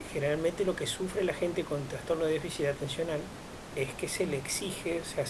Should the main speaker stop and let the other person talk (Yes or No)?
No